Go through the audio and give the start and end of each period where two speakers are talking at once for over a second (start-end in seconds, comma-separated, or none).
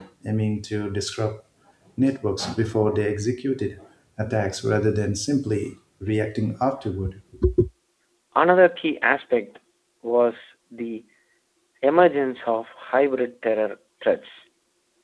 none